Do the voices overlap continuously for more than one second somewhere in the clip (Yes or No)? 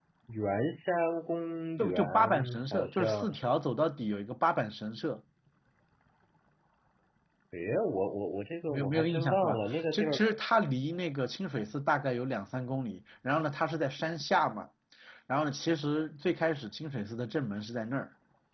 Yes